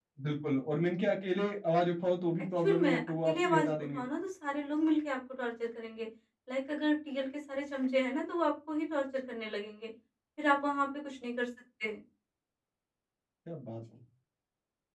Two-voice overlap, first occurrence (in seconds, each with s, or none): 2.6 s